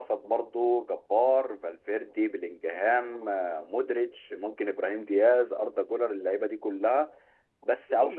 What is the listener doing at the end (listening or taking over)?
listening